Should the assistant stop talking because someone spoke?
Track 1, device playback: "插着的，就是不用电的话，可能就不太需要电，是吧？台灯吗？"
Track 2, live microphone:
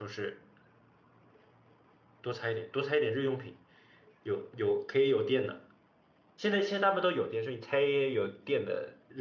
Yes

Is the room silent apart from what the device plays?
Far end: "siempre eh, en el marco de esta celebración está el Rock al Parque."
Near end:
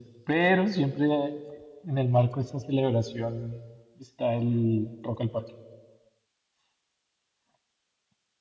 Yes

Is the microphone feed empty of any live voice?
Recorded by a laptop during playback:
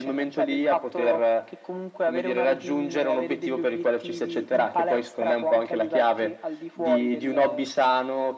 Yes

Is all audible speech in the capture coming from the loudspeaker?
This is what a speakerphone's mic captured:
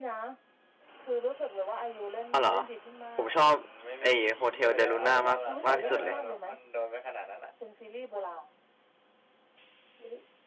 No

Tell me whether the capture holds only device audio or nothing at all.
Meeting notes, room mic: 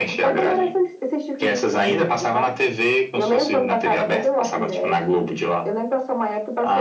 Yes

